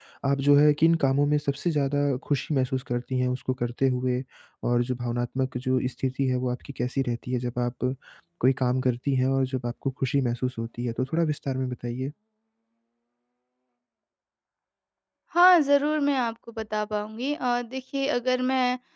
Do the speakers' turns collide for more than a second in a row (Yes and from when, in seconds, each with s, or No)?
No